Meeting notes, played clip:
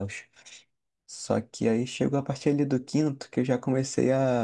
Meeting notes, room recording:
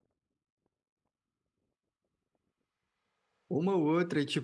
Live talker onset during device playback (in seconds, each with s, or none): 3.5 s